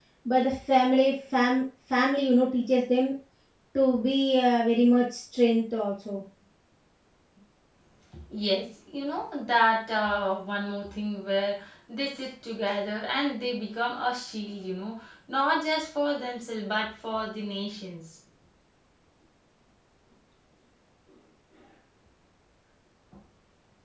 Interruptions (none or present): none